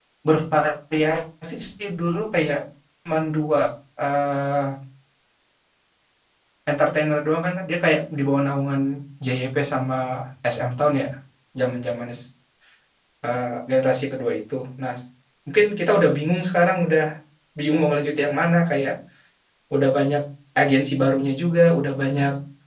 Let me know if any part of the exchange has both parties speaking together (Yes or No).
No